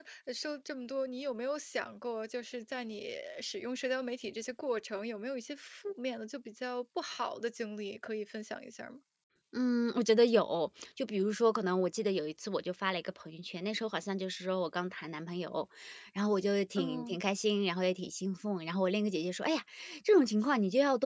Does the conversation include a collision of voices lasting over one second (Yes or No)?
No